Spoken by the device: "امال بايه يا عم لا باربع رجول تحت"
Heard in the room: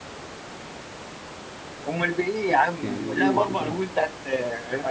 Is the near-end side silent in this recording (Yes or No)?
No